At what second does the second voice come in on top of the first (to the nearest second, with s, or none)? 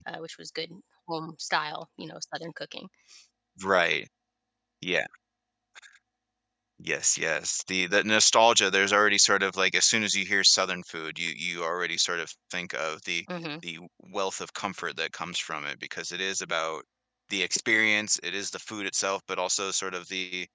none